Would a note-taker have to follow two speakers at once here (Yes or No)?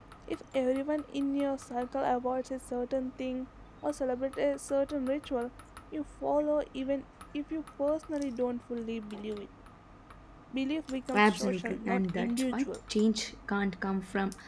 Yes